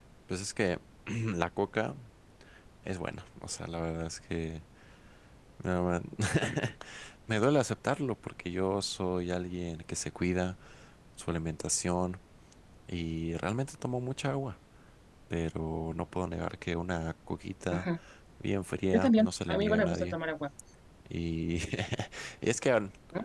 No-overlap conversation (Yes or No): No